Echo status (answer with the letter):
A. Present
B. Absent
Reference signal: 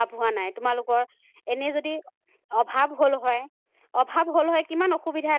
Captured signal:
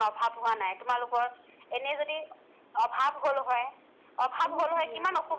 A